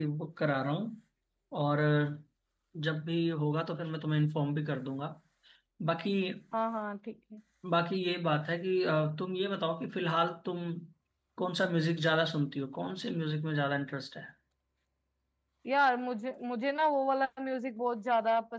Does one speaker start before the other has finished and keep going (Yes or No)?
No